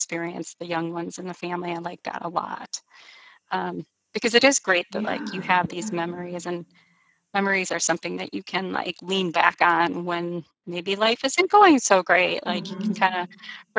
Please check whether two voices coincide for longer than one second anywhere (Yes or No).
Yes